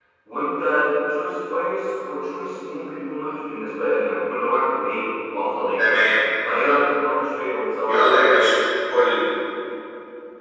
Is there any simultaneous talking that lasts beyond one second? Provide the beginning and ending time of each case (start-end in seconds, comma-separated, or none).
none